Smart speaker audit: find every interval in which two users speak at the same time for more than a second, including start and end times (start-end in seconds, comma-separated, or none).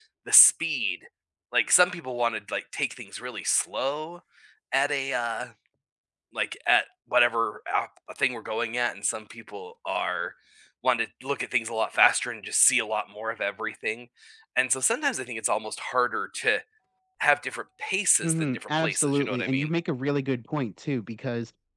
18.2-19.7